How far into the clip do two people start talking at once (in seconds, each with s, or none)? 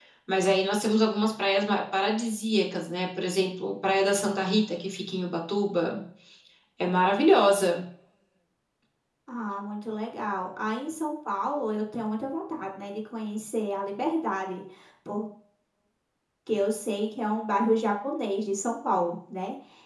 none